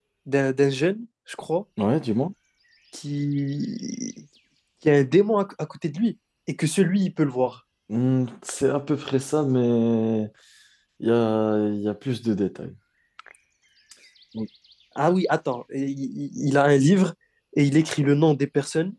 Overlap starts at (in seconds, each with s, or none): none